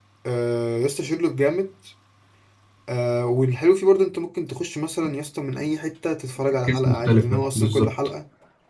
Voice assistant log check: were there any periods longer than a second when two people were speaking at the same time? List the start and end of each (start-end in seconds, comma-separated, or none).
6.7-7.9